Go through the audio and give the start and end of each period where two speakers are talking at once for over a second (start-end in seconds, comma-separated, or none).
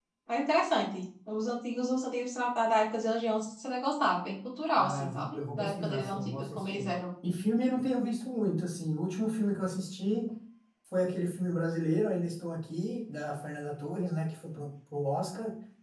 4.8-6.9